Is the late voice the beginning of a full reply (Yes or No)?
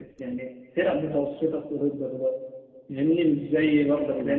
Yes